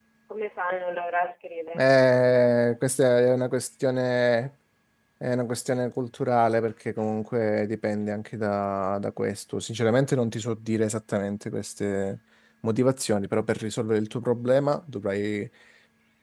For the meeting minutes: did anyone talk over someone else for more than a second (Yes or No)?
No